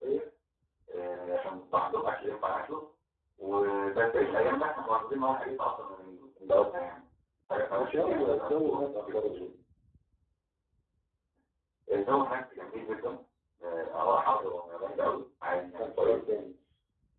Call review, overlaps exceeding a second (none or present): present